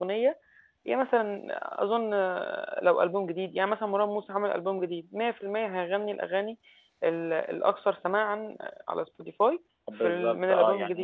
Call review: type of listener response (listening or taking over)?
taking over